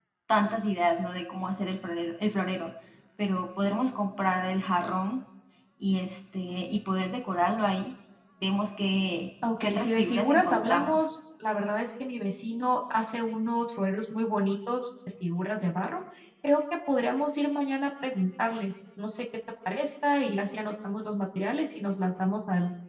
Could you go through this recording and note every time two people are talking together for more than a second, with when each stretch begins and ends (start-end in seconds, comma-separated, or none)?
9.6-11.0